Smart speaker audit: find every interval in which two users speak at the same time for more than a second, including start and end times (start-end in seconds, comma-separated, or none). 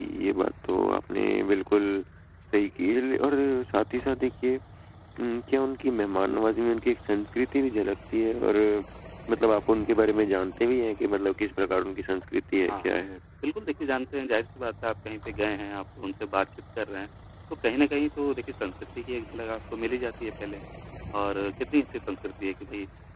none